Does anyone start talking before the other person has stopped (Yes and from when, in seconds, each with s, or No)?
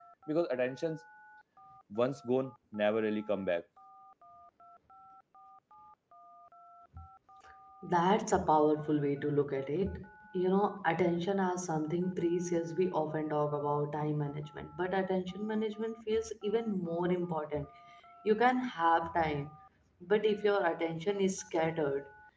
No